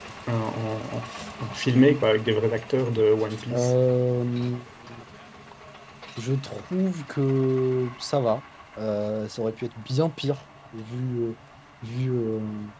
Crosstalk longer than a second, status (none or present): none